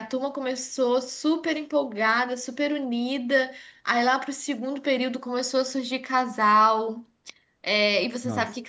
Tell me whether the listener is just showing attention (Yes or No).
Yes